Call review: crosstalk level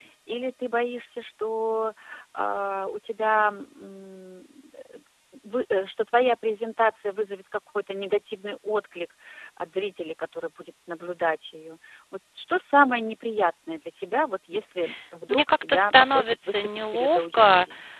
present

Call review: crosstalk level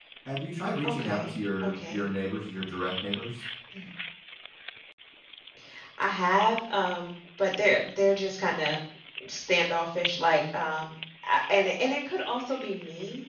present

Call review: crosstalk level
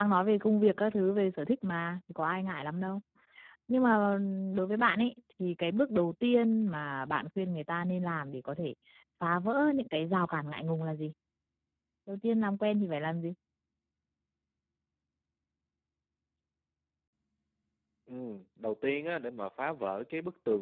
none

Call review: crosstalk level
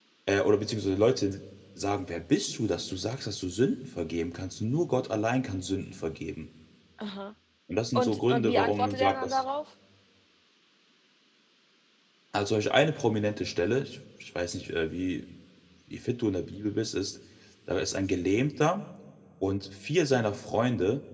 present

